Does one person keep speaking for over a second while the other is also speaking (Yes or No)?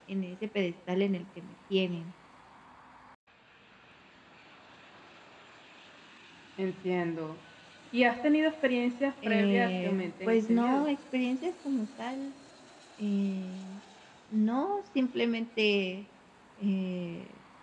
Yes